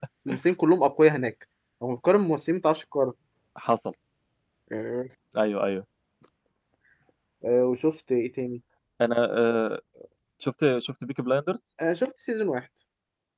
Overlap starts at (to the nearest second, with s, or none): none